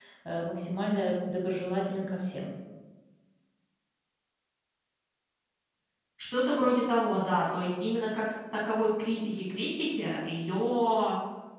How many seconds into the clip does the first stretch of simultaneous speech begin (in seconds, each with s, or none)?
none